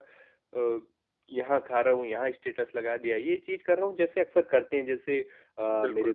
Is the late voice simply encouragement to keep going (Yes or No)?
Yes